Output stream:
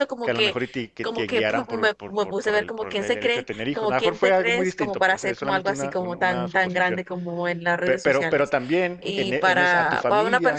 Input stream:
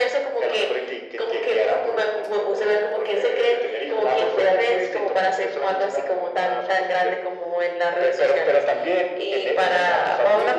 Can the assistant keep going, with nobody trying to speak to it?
Yes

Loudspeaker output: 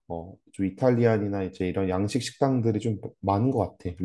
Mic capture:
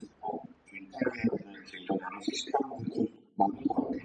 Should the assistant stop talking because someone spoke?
No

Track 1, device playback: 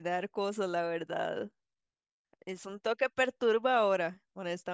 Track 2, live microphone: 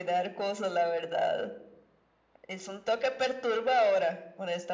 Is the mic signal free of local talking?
Yes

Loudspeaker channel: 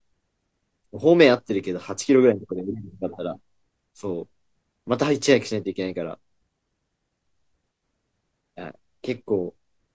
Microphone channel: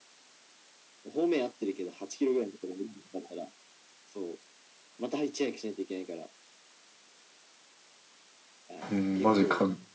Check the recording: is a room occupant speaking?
Yes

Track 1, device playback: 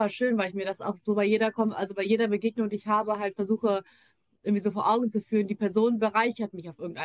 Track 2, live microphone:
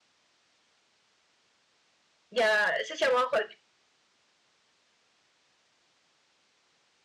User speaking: Yes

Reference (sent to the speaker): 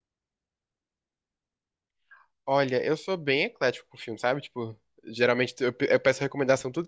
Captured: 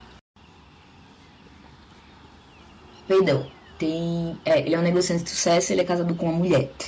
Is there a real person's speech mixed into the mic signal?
Yes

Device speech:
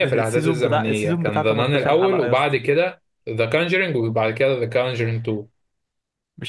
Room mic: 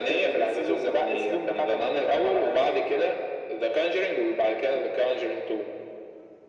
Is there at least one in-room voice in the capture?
No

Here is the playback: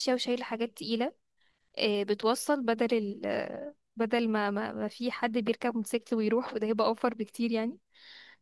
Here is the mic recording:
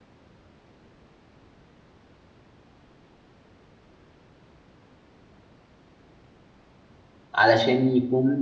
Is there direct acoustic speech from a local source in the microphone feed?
Yes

